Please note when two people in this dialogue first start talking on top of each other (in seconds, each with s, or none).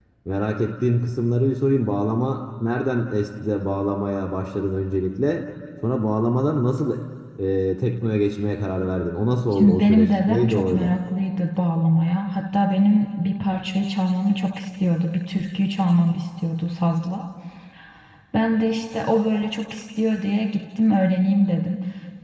9.5 s